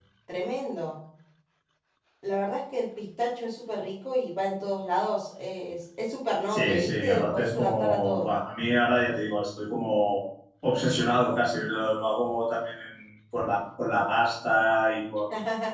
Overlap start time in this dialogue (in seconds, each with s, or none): 6.5 s